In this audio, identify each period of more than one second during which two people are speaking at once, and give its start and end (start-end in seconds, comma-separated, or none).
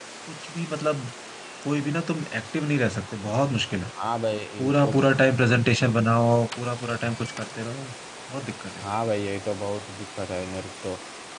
none